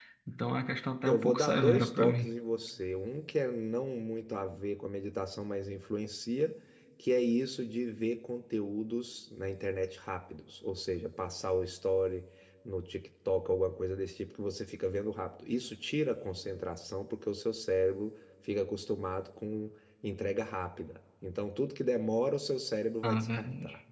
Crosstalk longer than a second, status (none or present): present